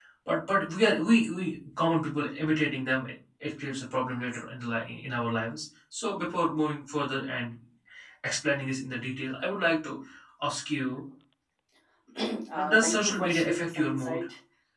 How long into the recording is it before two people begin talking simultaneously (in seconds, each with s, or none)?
12.5 s